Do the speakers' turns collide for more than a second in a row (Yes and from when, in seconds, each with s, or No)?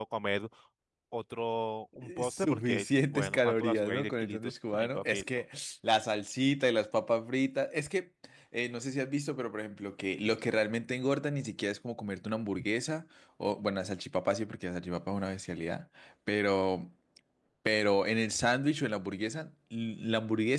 Yes, from 2.0 s